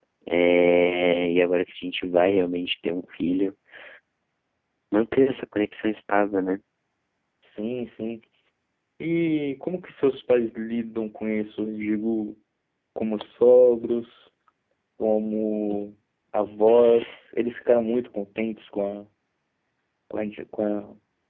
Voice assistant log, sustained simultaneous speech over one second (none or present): none